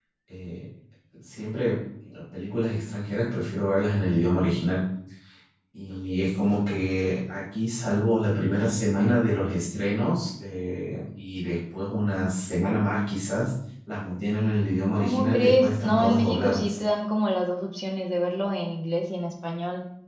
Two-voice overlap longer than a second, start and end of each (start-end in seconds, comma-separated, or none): 15.0-16.8